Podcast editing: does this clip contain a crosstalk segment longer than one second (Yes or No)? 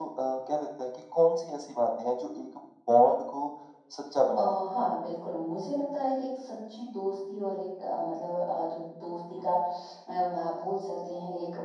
No